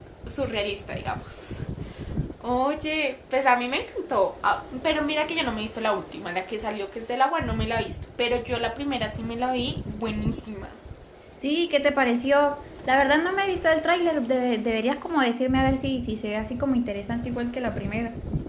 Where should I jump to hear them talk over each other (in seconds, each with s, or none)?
none